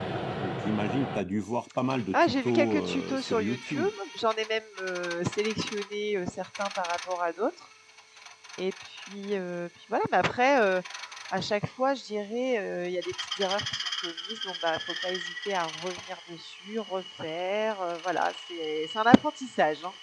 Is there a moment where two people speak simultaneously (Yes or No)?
Yes